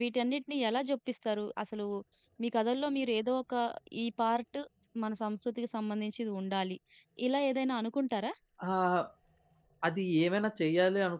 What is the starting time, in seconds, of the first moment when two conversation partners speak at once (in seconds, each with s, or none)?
none